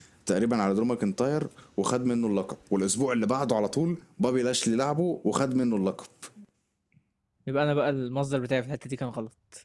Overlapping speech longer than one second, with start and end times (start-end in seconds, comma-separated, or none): none